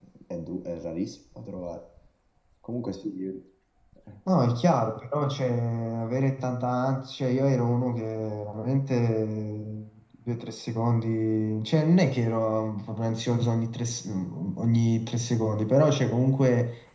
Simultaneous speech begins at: none

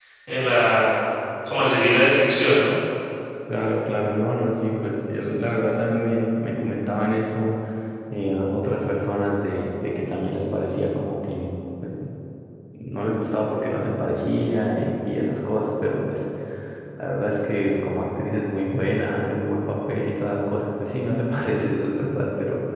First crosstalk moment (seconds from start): none

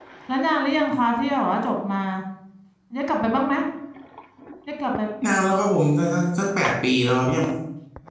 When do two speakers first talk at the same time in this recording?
none

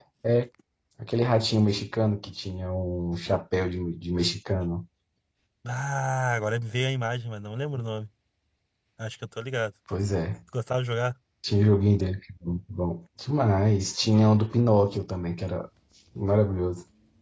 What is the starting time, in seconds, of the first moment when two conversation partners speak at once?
none

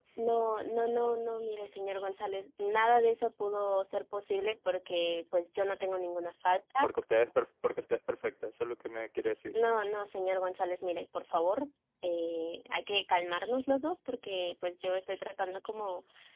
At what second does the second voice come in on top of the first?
none

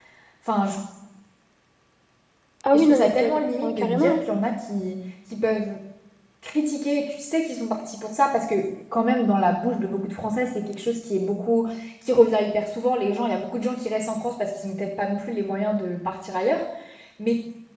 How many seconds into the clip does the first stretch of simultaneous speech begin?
3 s

